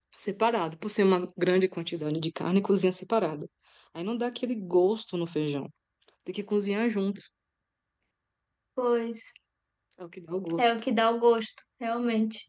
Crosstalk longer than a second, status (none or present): none